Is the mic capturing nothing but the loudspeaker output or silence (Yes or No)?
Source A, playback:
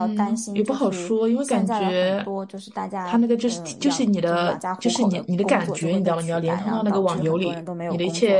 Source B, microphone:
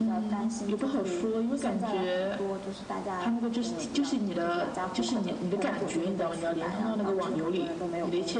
Yes